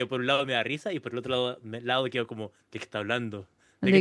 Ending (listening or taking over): taking over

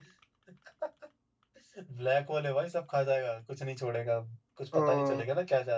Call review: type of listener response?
listening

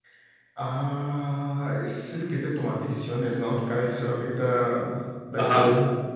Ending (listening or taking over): taking over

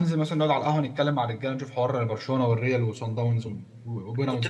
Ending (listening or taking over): taking over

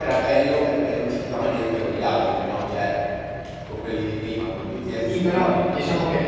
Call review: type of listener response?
taking over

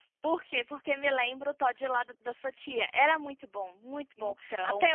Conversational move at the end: listening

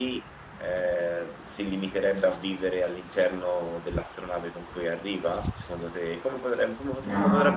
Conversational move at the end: taking over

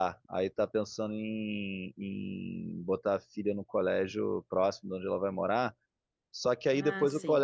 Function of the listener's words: listening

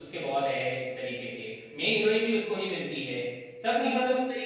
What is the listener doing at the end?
listening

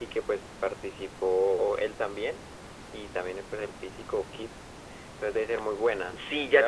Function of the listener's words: taking over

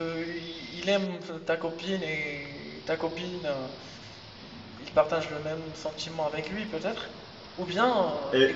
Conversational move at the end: taking over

